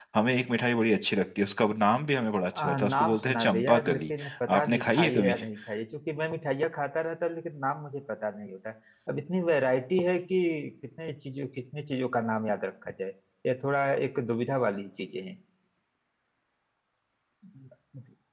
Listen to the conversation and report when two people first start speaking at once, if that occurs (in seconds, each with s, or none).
2.5 s